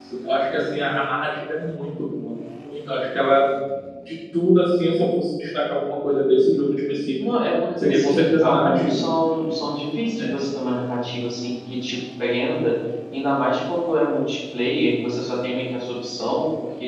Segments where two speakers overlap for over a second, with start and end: 7.8-9.1

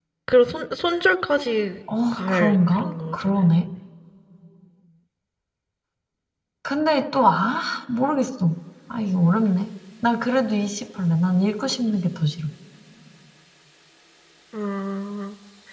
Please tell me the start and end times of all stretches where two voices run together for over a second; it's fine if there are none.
2.1-3.7

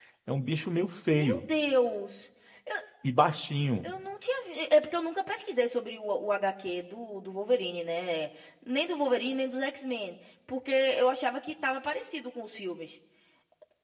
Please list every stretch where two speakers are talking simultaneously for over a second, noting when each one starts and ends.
none

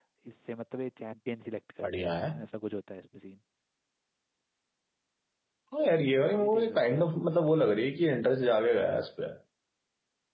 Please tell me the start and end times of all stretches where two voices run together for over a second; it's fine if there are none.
6.0-7.3

